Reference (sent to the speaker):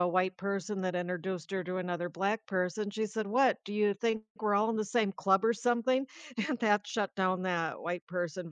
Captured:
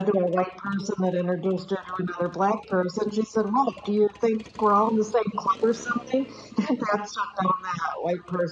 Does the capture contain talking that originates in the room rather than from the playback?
No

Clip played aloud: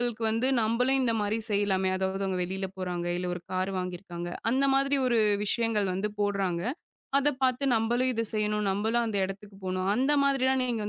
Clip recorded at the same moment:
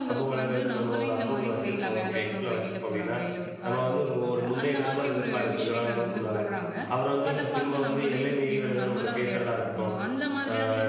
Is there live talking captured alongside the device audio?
Yes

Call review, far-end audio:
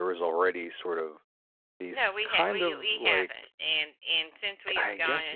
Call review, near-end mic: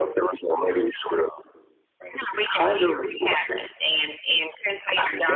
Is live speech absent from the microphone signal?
Yes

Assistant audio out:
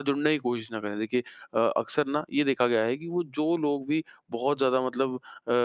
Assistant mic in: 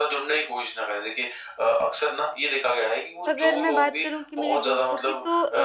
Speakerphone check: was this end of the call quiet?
No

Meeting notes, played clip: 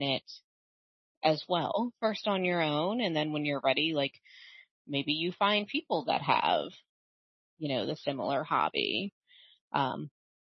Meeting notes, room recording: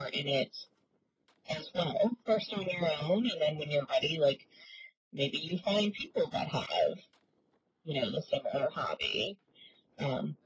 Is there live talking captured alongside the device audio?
No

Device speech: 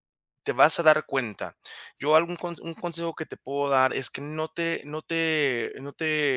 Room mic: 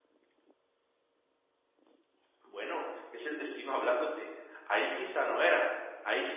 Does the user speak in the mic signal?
Yes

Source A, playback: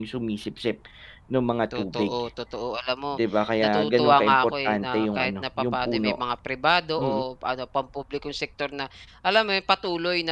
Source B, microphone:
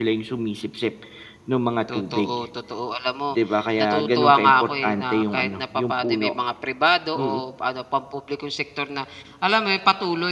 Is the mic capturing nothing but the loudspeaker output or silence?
Yes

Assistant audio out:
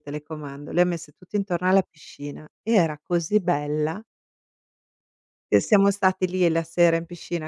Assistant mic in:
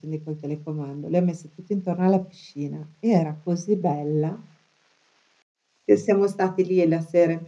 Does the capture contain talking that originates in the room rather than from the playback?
No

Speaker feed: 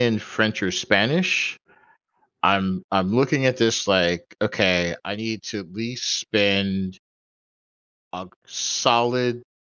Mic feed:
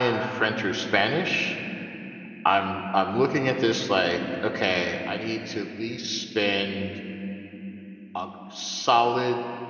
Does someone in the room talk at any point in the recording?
No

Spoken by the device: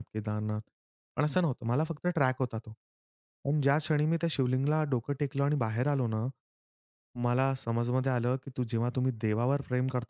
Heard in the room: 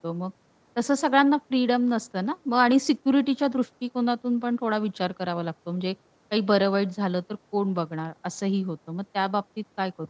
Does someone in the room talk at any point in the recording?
Yes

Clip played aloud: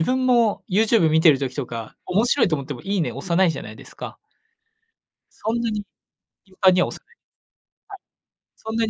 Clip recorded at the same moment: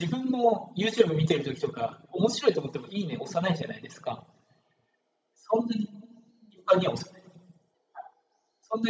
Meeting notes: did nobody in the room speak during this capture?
Yes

